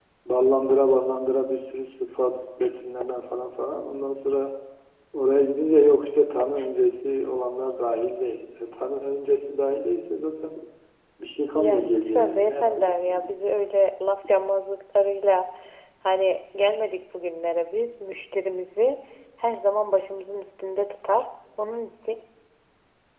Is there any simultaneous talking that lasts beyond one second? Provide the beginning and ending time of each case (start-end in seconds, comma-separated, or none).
11.6-13.3